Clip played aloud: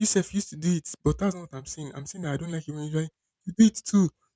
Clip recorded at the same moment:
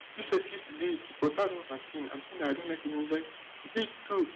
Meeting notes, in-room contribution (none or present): none